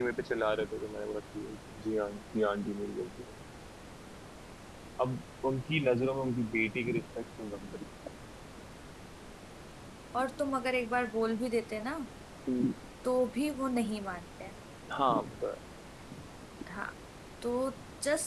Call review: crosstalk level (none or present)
none